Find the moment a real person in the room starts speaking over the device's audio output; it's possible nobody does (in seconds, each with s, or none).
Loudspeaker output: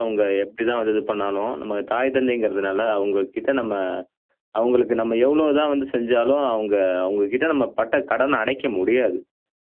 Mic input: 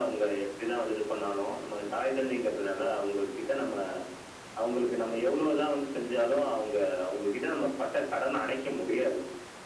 none